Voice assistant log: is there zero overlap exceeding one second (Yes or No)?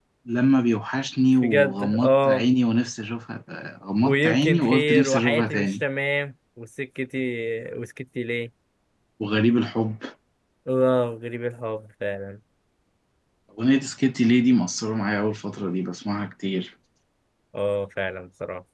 No